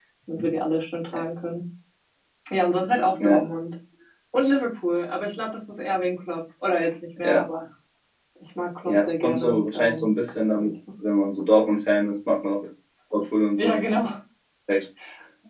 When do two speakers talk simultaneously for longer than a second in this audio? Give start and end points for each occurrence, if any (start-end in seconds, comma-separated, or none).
8.8-10.1